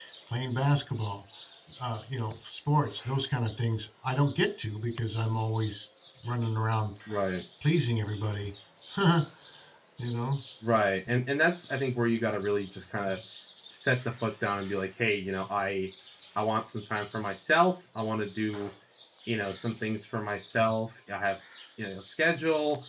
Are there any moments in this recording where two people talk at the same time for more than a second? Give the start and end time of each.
none

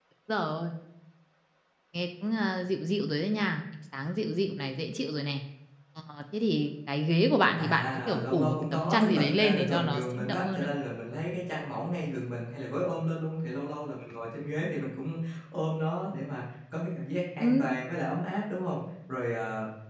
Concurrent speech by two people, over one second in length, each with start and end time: 7.6-10.7

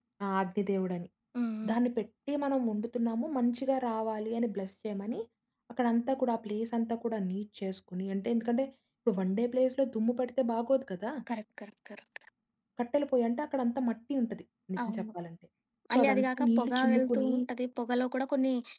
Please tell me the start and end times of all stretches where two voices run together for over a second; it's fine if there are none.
15.9-17.3

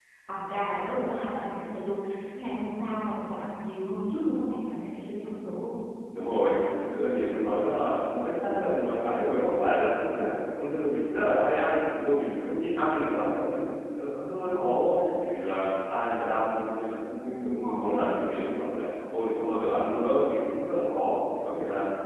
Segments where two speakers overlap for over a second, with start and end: none

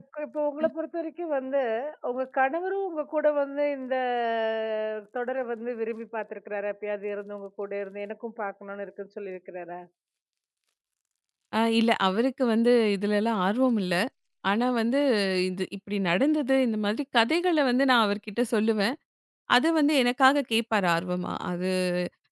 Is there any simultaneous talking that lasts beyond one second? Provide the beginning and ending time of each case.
none

